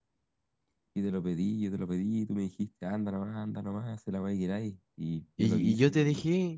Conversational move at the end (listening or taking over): taking over